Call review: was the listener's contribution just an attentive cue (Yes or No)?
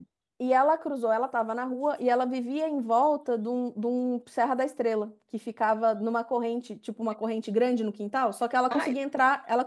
Yes